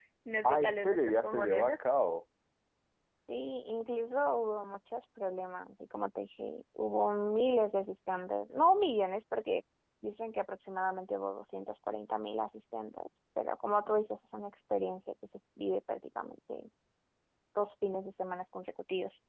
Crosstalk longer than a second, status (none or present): present